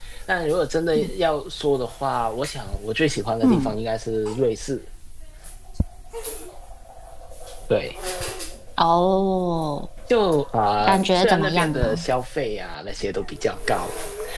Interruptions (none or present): present